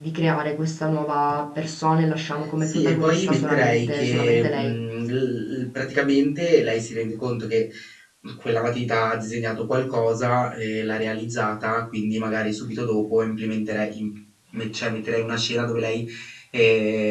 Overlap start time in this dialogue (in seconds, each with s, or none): 2.6 s